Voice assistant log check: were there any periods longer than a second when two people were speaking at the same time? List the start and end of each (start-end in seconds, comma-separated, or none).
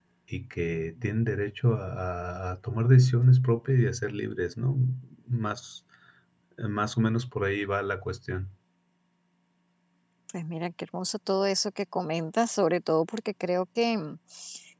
none